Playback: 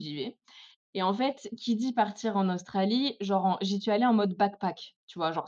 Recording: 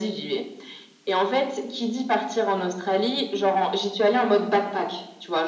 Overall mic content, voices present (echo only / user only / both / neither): echo only